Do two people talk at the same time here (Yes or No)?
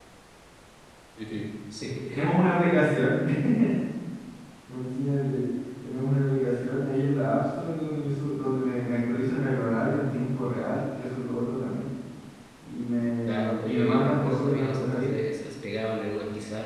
Yes